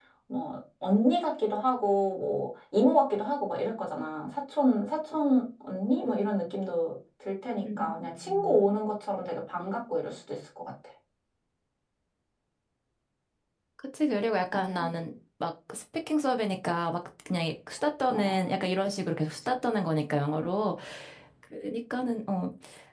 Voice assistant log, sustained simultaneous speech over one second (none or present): none